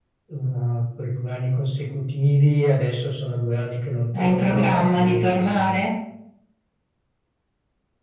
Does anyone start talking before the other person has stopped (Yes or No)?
Yes